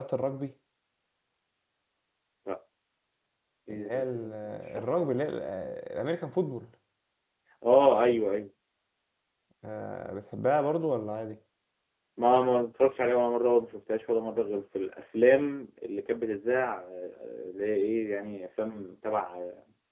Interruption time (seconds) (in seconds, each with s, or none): 3.7 s